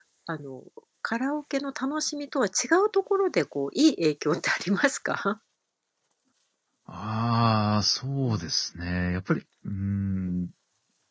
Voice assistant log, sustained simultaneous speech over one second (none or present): none